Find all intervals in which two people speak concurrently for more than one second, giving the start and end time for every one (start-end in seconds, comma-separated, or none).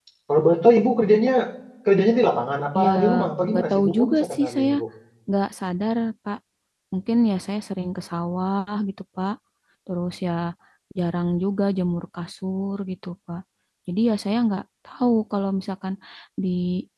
3.5-4.7